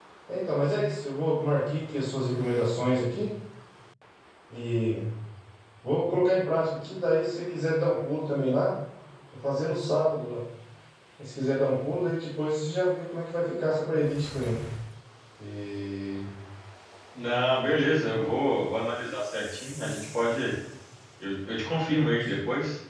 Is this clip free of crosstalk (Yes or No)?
Yes